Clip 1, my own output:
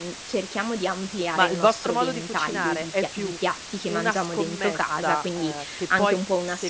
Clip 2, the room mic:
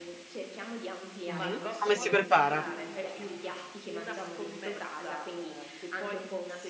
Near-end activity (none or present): present